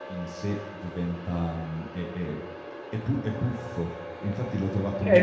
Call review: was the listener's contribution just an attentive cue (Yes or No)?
No